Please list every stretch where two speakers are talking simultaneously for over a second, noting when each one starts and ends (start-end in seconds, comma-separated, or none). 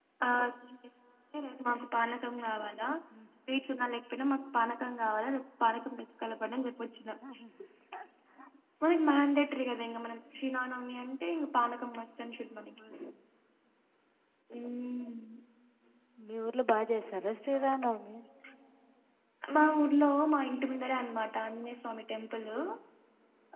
none